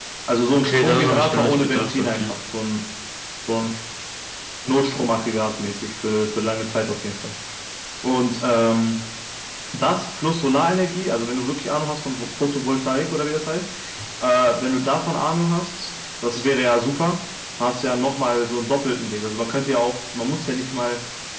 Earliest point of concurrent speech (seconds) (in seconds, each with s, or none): 0.6 s